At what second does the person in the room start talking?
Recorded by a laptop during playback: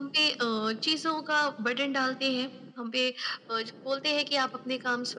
none

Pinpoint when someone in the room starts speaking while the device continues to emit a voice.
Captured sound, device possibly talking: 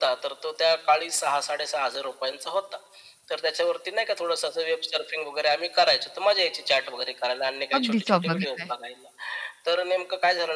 8 s

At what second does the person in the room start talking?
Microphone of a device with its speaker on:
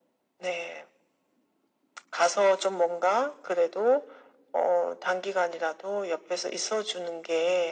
none

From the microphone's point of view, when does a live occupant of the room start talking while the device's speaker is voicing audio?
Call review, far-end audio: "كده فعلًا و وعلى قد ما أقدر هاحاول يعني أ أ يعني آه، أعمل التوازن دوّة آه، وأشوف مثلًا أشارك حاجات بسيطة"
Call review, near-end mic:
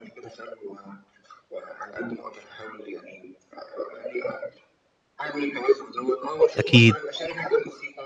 7 s

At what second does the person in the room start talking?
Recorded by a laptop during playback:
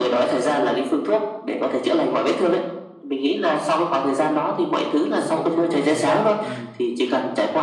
5 s

